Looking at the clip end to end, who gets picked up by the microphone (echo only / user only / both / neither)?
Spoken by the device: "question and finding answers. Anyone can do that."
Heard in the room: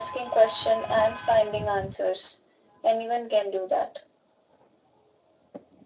echo only